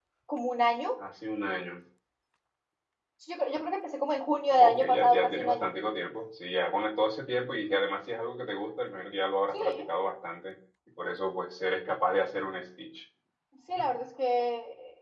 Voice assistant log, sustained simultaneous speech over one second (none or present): present